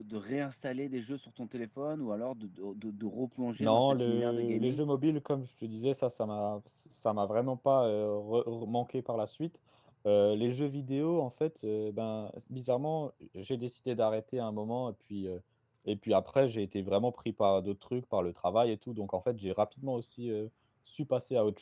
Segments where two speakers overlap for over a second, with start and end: 3.6-4.8

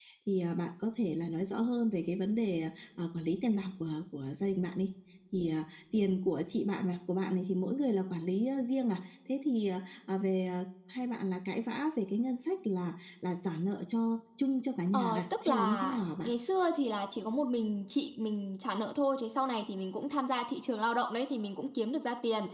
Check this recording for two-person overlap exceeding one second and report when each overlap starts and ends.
14.9-16.3

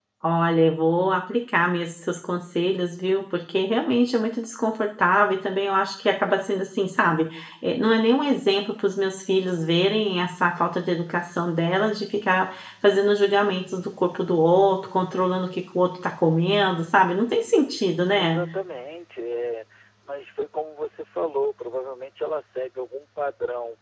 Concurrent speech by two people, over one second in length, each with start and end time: none

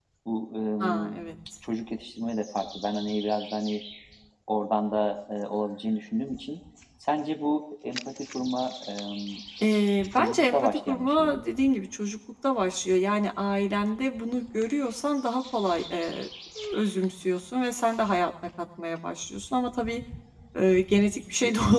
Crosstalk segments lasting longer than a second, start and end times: 10.1-11.4

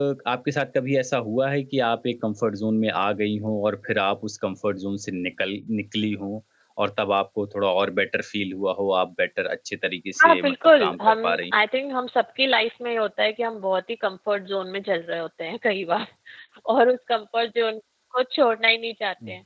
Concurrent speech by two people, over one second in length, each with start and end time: 10.2-11.5

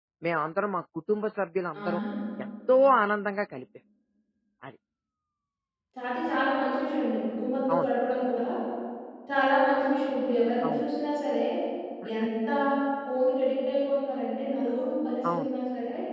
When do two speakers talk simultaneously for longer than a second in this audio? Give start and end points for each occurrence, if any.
none

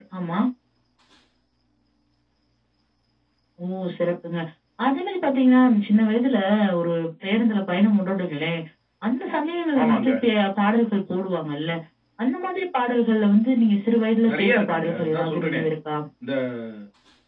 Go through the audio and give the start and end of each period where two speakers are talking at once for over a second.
14.3-15.6

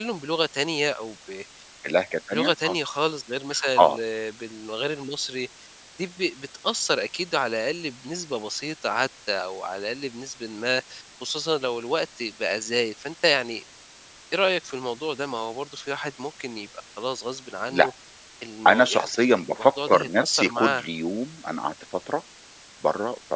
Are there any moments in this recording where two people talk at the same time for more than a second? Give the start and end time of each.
18.7-20.8

